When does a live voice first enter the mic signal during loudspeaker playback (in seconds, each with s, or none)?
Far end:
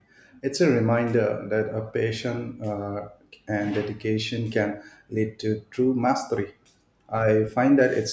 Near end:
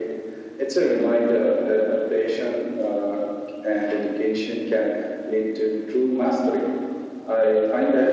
none